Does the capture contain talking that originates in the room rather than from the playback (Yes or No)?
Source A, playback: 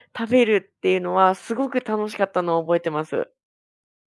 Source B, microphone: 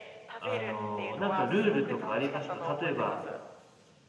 Yes